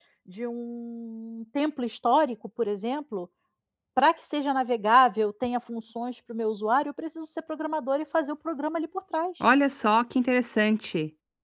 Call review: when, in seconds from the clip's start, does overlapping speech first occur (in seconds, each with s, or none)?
none